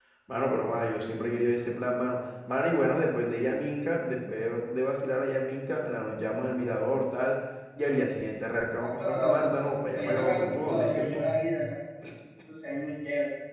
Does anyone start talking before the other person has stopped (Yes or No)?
Yes